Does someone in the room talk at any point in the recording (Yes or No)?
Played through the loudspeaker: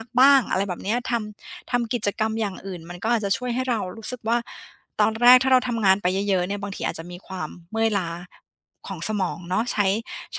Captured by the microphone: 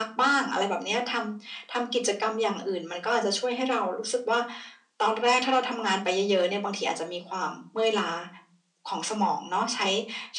No